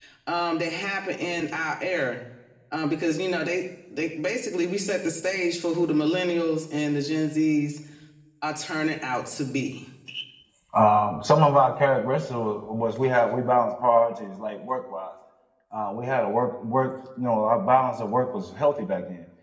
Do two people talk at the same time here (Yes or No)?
No